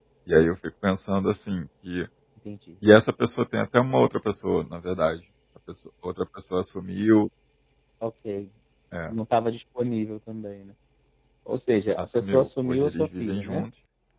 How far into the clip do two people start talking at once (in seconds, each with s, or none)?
12.0 s